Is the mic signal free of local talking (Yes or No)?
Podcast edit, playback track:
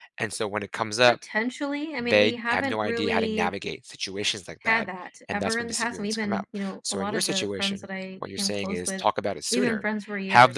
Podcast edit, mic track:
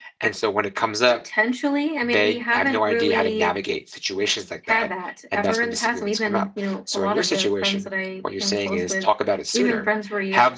Yes